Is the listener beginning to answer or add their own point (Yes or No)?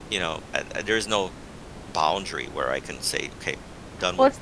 Yes